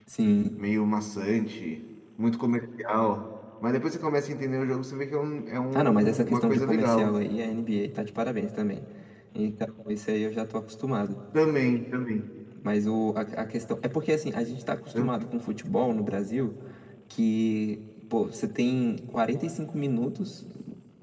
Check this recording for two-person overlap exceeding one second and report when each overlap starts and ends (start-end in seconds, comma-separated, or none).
5.8-7.2